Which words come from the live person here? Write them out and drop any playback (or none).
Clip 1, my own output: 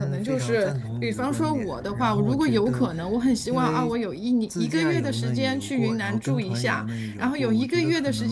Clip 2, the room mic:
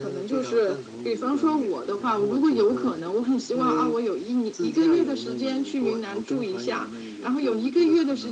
none